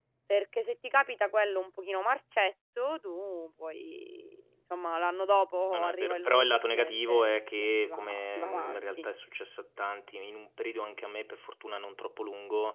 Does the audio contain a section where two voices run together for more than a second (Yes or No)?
Yes